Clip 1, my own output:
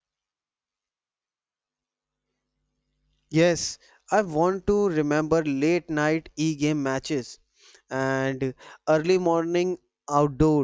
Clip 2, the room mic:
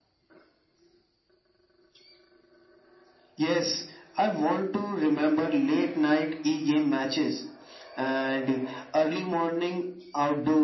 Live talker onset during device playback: none

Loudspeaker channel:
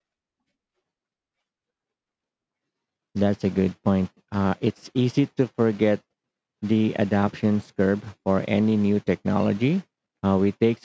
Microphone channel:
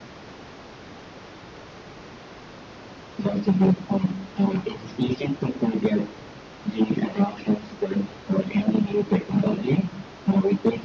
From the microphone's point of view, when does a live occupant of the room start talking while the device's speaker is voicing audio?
none

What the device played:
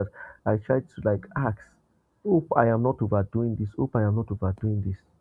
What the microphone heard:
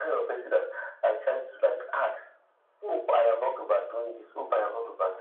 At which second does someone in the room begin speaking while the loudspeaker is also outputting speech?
none

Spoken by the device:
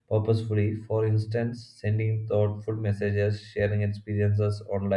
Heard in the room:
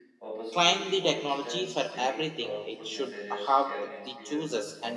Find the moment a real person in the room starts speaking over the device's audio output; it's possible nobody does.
0.6 s

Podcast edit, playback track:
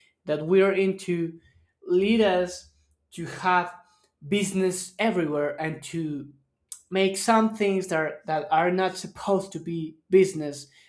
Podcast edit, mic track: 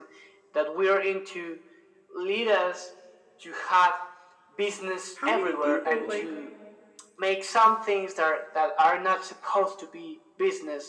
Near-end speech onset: 5.1 s

